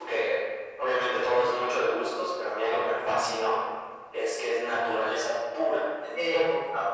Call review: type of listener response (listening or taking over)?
listening